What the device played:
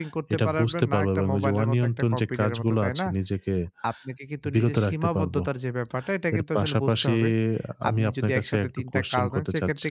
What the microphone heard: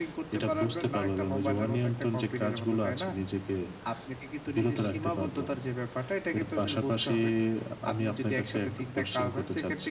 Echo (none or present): present